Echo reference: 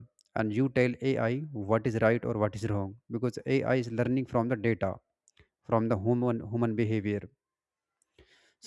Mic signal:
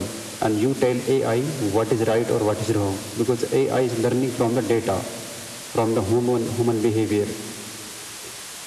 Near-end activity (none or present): none